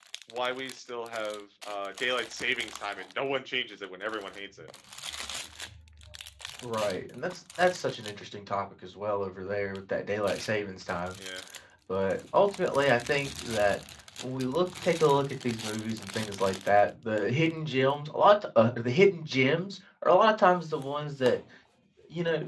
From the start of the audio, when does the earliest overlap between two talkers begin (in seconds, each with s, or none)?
none